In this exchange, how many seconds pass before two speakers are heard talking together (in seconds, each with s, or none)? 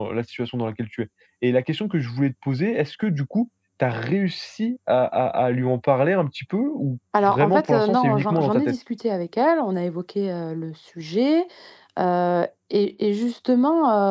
7.1 s